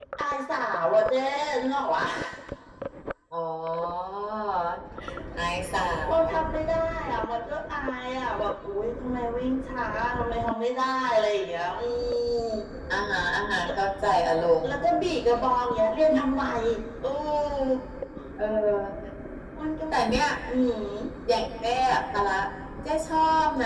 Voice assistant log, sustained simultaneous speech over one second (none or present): none